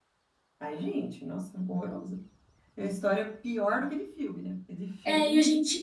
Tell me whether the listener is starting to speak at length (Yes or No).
Yes